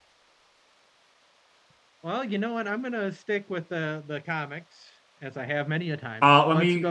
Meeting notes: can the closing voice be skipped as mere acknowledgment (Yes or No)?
No